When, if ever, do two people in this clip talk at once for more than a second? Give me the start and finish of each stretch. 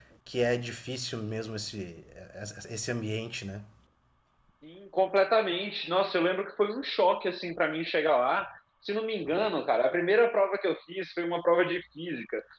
none

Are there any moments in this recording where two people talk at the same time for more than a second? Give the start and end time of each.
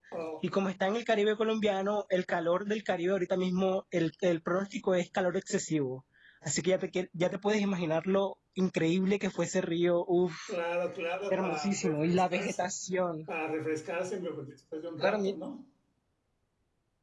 11.3-12.6

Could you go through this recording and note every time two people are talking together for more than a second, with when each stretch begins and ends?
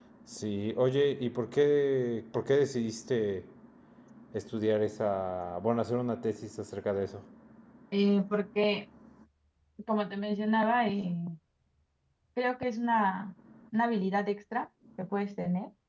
none

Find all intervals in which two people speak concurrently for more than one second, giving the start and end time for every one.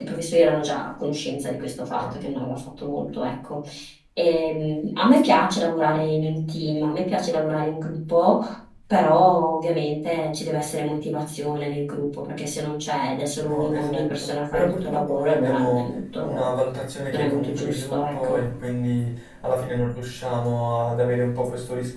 13.3-16.5, 17.1-18.4

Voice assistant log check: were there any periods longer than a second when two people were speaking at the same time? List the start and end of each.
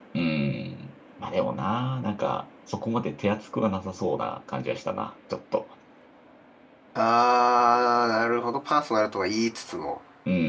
none

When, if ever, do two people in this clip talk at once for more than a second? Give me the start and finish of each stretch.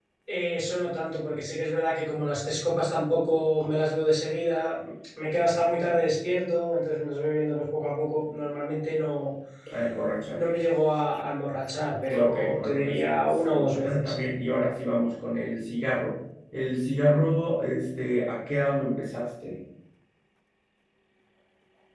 12.1-14.2

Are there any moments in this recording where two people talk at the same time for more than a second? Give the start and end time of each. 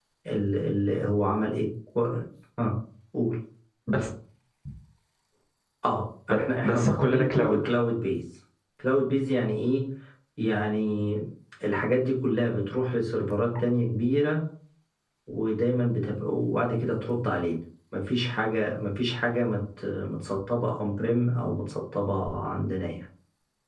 6.3-7.7

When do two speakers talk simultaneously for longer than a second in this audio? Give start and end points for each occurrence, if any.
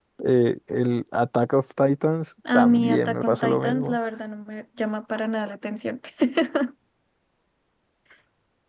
2.5-4.0

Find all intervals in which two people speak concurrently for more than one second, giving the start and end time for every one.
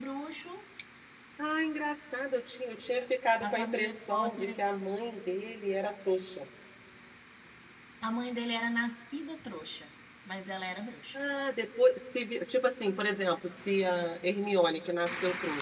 3.4-4.6

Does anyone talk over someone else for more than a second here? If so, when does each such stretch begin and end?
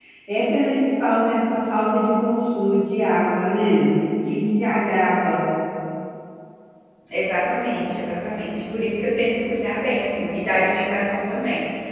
none

